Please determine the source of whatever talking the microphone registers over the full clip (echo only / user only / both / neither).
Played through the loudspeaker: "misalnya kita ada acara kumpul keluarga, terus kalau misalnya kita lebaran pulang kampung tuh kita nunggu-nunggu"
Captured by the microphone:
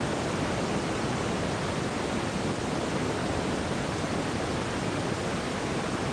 neither